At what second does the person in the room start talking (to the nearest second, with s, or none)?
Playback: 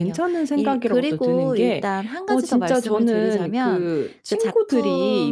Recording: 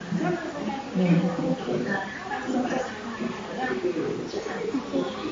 1 s